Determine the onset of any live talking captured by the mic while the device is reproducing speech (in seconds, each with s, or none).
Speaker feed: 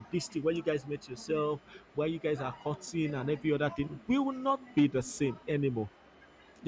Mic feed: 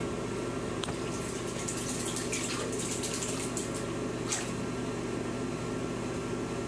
none